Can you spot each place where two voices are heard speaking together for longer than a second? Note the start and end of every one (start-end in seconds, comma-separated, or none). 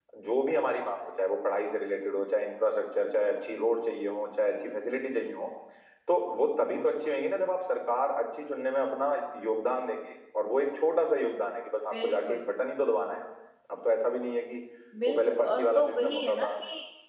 15.1-16.5